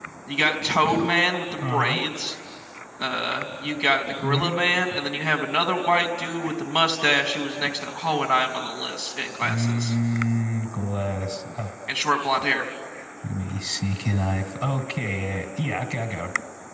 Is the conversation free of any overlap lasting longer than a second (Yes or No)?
Yes